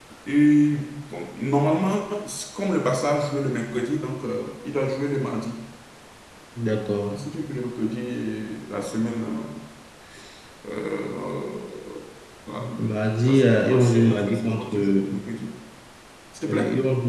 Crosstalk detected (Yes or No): Yes